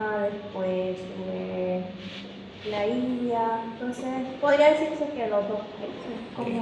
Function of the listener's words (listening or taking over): taking over